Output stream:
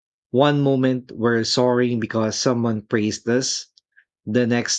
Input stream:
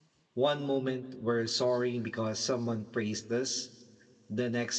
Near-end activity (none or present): none